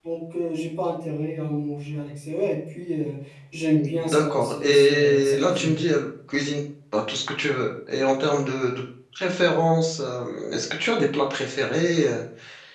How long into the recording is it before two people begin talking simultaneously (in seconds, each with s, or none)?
3.8 s